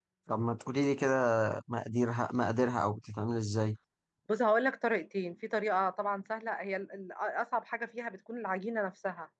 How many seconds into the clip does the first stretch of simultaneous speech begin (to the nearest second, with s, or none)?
none